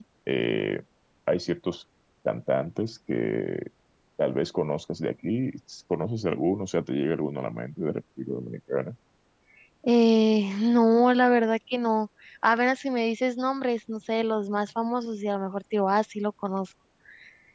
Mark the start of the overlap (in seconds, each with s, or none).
none